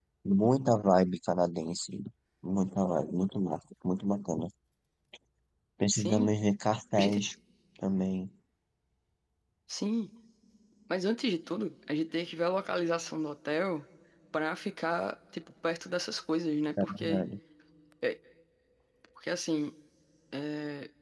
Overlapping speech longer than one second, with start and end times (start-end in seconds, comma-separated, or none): none